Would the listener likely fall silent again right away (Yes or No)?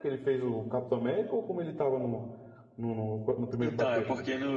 No